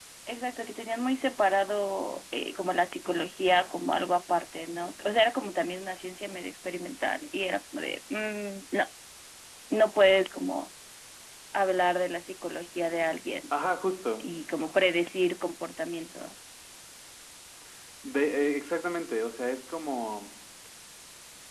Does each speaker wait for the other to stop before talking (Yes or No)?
Yes